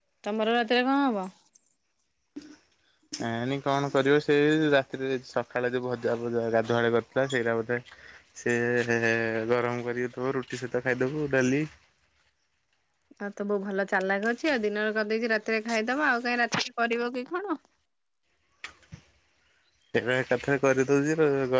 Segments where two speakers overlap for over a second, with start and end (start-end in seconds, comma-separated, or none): none